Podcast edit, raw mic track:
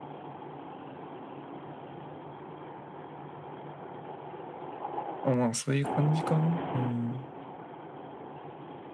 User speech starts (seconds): 5.2 s

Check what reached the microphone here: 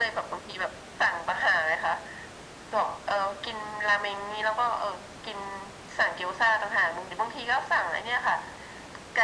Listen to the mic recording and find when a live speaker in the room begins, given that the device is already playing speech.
none

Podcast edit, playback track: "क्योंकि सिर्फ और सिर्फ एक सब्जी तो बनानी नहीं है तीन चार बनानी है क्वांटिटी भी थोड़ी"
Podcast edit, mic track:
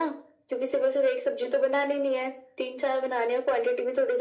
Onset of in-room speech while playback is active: none

